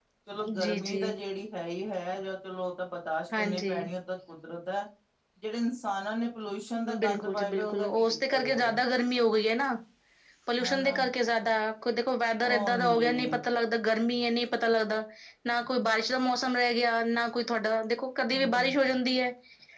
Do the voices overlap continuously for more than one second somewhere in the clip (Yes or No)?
Yes